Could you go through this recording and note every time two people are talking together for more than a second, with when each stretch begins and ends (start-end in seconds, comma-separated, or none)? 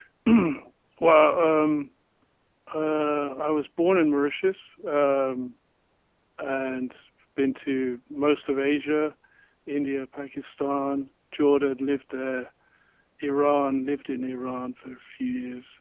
none